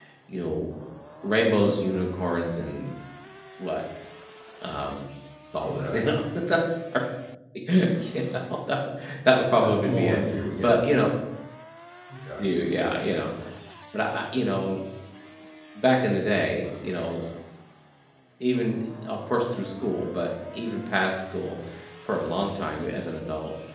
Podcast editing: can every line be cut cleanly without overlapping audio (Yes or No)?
No